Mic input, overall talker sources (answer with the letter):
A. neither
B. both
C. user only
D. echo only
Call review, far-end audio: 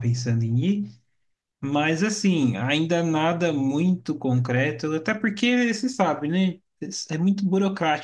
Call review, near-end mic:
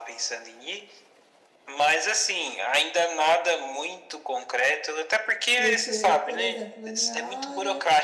B